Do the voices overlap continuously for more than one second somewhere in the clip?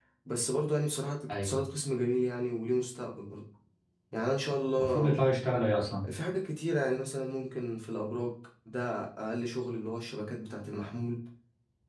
No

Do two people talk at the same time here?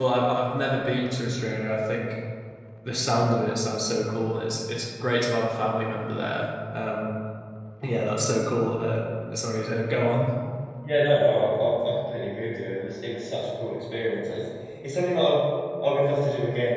No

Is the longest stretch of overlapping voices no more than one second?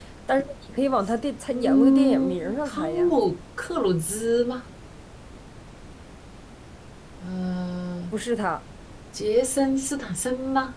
No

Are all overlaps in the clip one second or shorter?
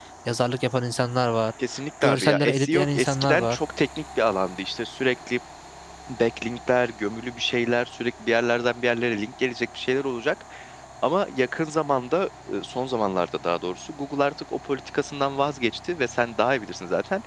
No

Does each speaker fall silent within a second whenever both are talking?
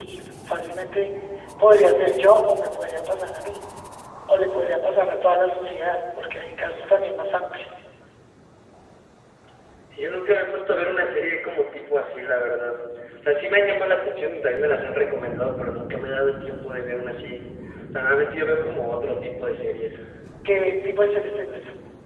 Yes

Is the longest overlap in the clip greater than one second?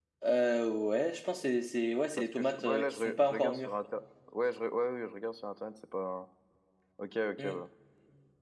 Yes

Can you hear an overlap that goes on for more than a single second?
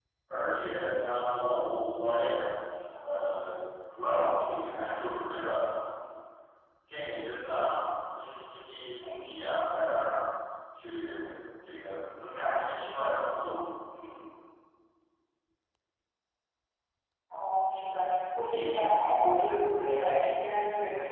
No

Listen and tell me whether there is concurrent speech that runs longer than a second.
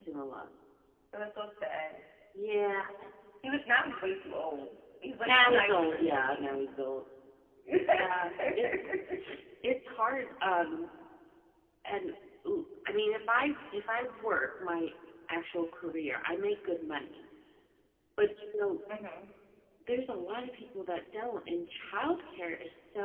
Yes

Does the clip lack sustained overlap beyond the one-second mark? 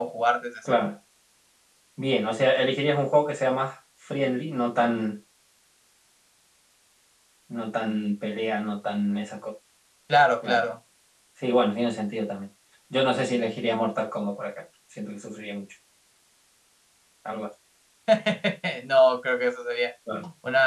Yes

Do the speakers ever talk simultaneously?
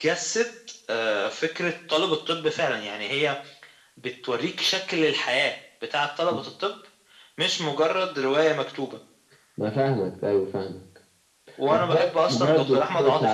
Yes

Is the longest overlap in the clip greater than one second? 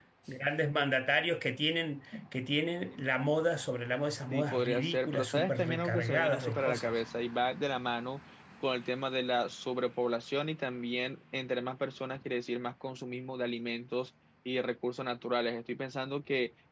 Yes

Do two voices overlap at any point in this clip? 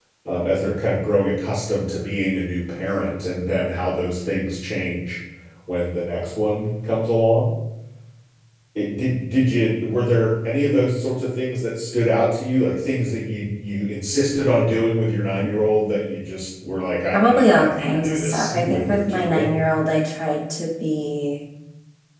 Yes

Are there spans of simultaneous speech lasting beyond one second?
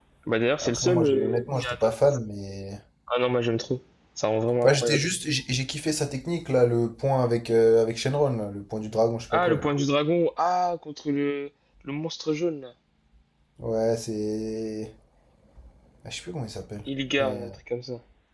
Yes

